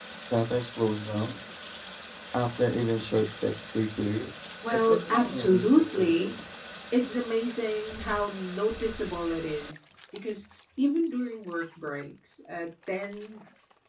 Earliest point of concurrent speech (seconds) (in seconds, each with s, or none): 4.6 s